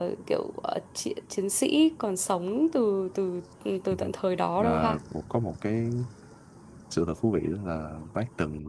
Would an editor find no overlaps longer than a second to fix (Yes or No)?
Yes